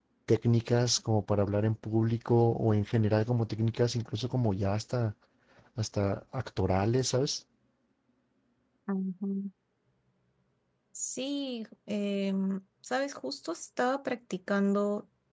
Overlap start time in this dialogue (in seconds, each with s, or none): none